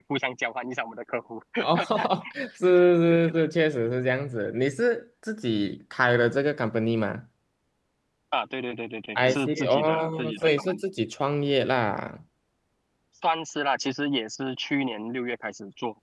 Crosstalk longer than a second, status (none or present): present